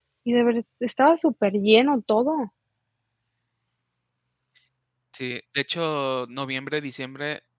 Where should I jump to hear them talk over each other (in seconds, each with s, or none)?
none